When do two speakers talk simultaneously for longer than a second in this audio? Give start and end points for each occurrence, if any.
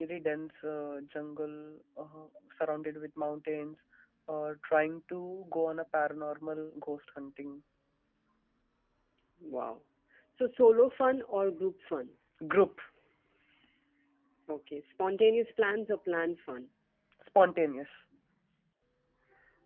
none

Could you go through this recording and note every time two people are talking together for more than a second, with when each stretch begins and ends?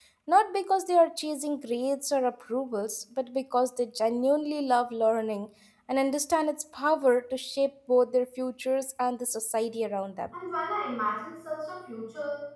none

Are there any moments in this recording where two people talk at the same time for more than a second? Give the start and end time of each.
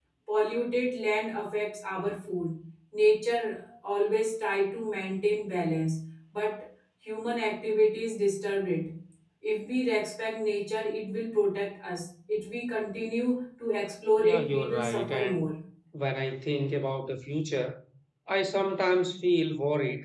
14.2-15.5

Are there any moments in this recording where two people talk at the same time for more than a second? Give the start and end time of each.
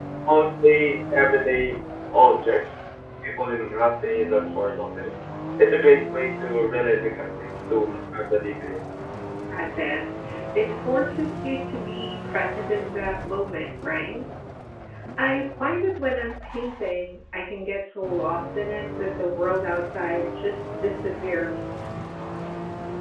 none

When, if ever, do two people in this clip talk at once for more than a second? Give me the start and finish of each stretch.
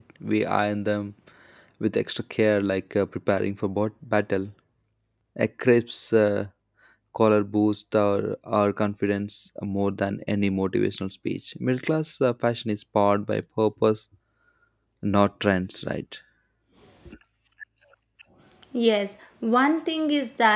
none

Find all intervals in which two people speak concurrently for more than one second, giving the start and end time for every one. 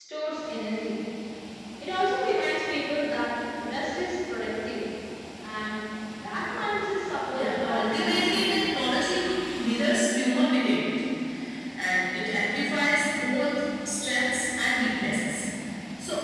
7.3-8.6

